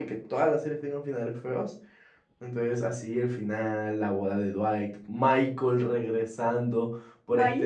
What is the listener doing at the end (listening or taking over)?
listening